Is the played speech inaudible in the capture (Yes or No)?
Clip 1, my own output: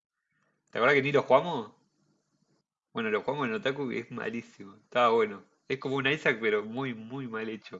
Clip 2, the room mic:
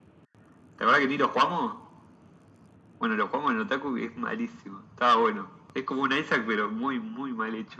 No